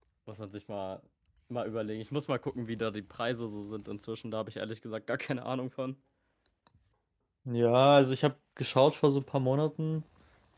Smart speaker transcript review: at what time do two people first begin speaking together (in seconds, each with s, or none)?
none